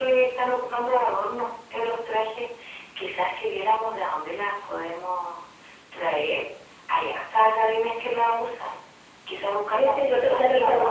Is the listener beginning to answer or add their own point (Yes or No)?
Yes